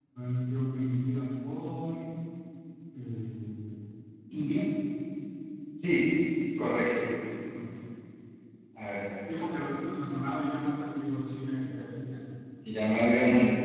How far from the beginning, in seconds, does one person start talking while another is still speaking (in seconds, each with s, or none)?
none